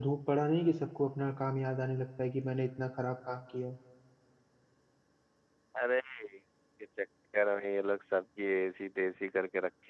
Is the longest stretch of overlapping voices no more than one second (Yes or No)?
Yes